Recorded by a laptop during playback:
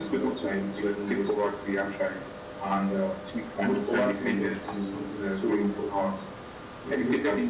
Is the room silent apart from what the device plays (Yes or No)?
No